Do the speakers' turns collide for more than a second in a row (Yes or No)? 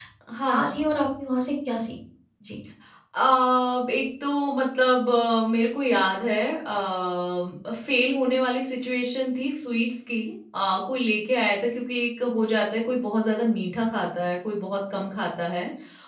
No